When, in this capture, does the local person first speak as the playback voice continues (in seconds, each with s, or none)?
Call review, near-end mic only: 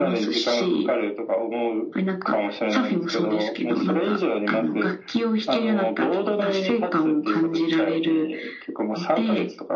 none